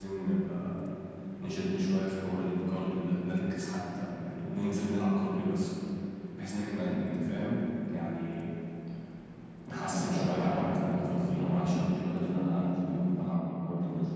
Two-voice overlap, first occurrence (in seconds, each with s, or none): 9.8 s